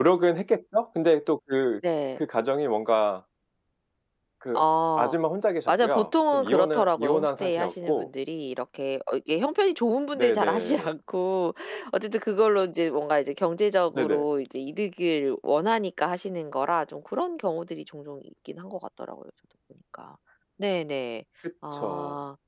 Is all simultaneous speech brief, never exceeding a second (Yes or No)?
No